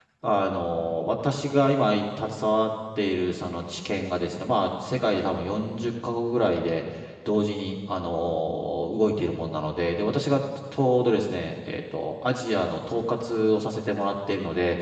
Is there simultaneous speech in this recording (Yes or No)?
No